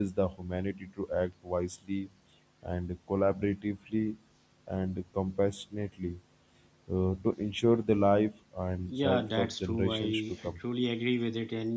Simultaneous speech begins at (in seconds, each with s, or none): 8.9 s